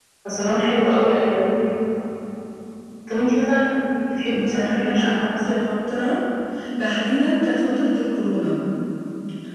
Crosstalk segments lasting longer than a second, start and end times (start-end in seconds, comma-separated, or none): 4.3-5.7